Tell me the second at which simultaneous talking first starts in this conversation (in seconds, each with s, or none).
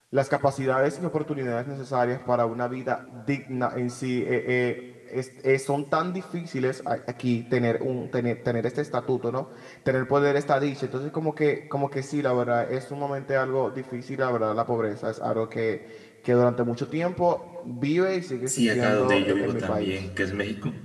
18.5 s